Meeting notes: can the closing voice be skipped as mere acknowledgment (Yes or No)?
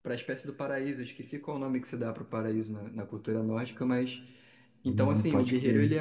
No